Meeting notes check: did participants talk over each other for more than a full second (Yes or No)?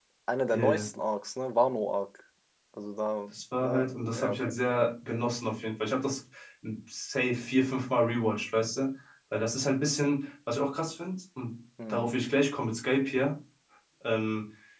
Yes